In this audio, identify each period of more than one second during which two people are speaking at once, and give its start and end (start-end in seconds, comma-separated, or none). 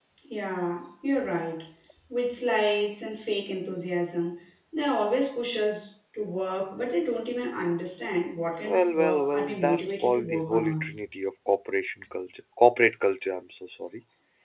8.6-10.8